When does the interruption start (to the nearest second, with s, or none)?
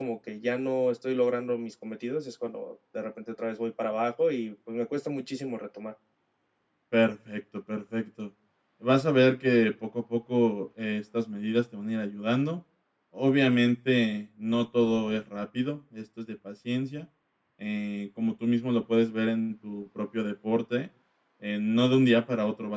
none